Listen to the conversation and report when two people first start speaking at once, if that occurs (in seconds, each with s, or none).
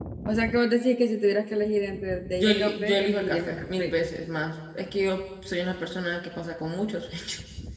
2.4 s